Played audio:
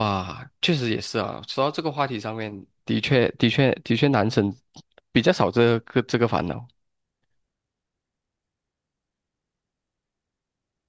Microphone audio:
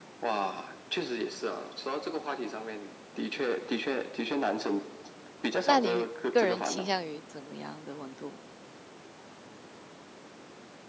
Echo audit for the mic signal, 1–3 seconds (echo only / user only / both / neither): echo only